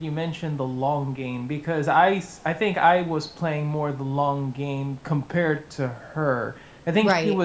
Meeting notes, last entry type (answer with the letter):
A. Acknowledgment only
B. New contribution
A